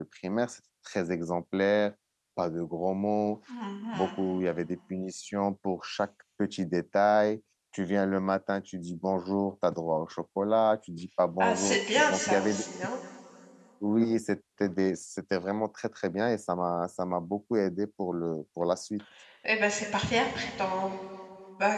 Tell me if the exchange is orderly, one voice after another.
No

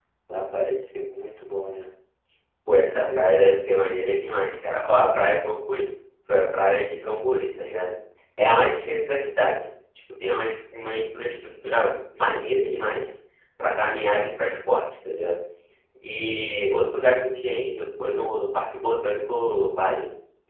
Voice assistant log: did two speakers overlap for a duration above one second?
No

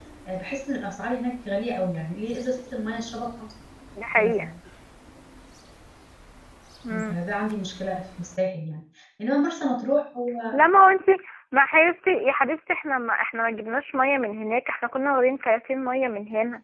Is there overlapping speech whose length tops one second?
No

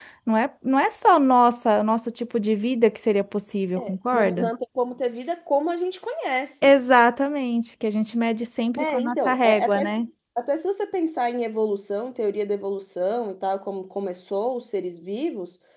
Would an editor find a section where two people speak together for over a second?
Yes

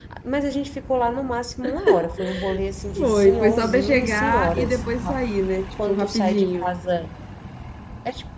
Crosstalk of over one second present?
Yes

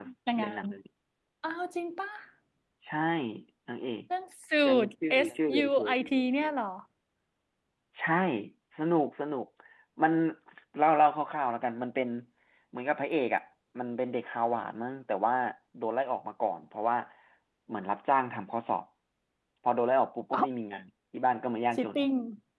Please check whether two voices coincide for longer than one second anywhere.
Yes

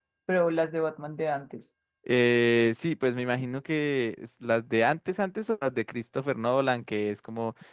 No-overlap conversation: Yes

